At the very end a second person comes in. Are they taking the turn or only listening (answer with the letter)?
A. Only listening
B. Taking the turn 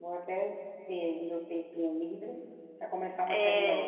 B